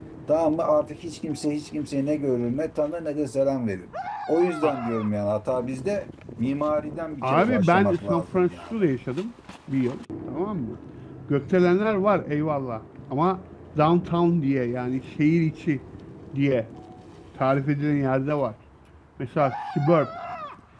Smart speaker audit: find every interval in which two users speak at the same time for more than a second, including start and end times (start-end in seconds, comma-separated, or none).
7.2-8.8